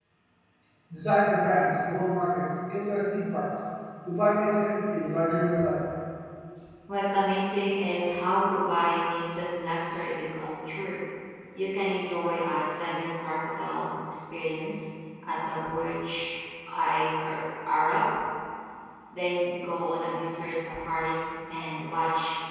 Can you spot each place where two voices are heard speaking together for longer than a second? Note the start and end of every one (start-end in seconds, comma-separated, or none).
none